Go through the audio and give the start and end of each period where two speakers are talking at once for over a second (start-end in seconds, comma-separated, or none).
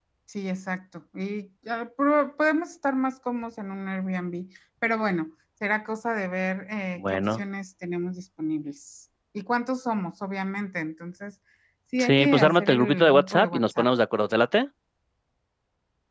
12.0-13.9